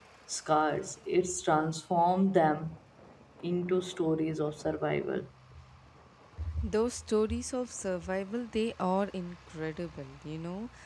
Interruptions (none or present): none